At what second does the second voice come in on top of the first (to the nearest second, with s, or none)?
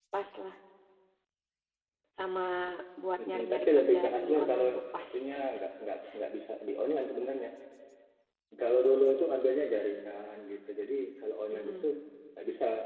3 s